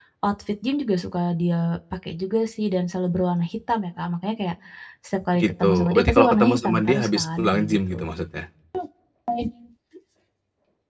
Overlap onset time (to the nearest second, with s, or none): 5 s